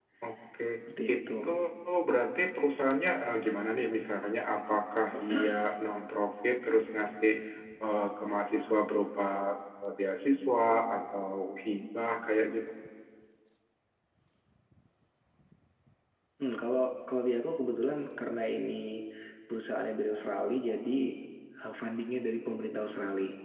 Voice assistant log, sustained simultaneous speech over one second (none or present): none